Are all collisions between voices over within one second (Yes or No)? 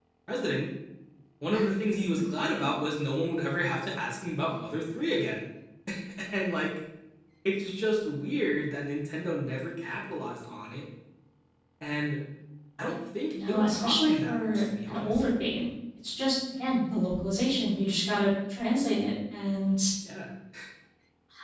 No